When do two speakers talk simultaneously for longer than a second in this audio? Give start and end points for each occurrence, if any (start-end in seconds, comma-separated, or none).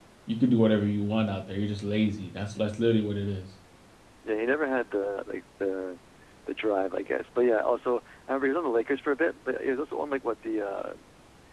none